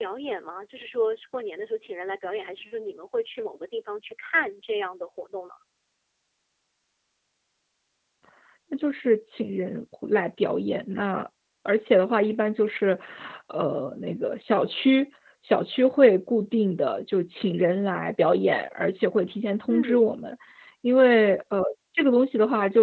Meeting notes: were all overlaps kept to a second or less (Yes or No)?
Yes